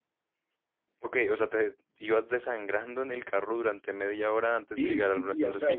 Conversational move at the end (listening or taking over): taking over